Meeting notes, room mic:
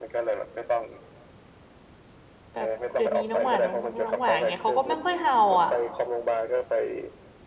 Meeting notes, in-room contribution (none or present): present